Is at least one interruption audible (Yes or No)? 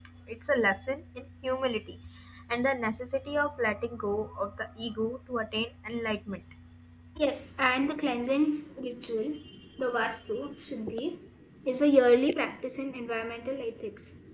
No